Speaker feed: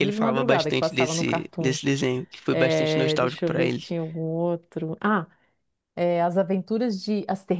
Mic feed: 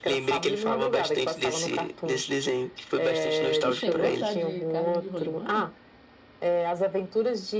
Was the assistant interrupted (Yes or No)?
Yes